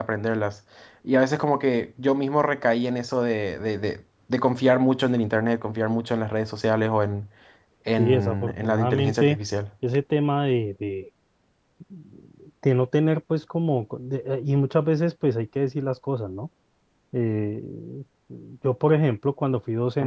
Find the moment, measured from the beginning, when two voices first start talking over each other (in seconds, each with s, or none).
8.0 s